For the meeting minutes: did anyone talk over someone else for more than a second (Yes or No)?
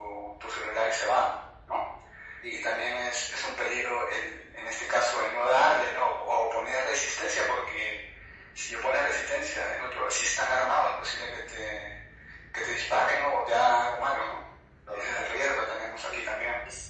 Yes